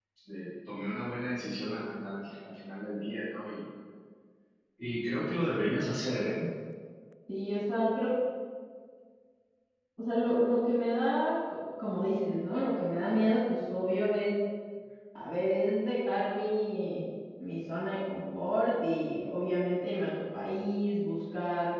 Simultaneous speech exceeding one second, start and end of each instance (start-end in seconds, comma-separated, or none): none